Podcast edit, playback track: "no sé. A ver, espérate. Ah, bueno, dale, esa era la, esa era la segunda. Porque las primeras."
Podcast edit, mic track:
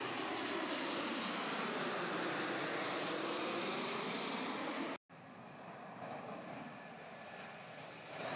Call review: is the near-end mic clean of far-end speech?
Yes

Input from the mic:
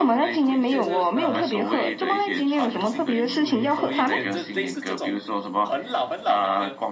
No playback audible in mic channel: No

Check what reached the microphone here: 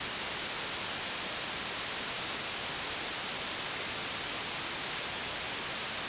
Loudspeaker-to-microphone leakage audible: No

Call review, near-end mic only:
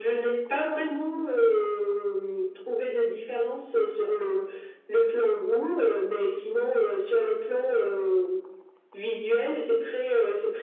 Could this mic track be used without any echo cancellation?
No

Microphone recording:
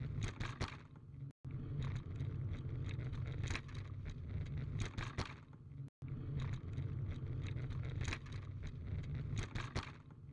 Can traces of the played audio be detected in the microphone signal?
No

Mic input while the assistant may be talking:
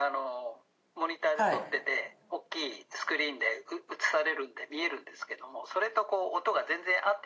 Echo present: Yes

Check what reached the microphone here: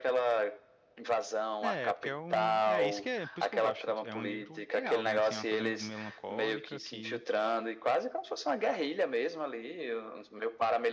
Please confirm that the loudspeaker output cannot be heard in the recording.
No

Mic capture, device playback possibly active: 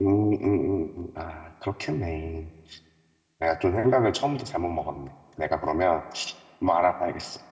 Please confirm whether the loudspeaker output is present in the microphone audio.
No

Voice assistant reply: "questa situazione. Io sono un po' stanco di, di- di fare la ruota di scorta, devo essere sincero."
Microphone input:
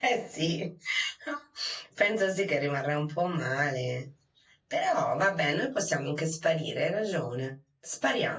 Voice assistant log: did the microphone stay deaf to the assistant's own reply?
Yes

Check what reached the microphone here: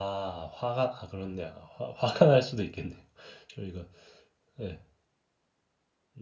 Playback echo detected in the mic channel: No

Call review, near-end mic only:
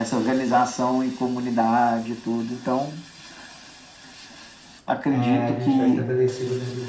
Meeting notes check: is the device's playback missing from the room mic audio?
No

